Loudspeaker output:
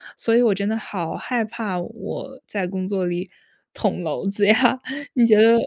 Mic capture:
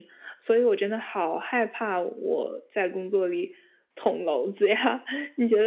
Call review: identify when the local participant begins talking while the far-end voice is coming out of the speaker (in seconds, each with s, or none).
none